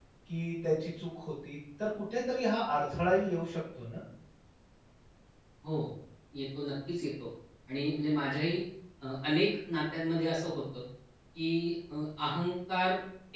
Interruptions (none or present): none